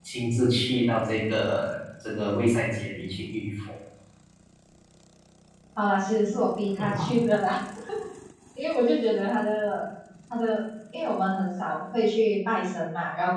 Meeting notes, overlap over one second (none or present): none